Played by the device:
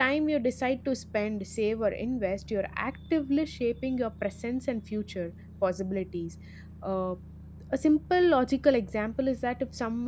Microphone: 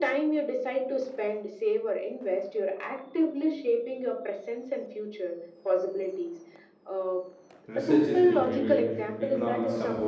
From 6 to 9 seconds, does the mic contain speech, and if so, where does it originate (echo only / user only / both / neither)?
both